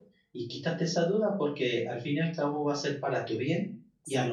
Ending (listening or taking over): listening